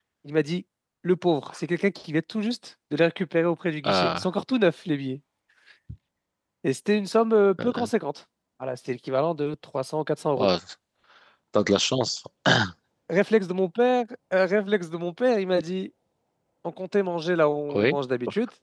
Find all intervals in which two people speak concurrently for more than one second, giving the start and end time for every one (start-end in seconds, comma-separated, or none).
none